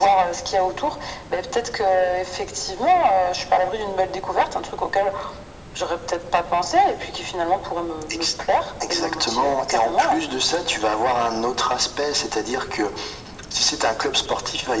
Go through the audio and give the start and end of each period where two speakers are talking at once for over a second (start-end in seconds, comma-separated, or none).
8.9-10.2